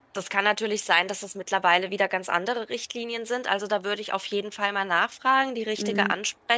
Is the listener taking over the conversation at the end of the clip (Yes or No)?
No